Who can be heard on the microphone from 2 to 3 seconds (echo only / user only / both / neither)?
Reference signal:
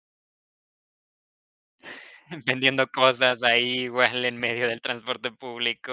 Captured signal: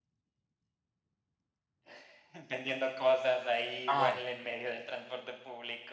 echo only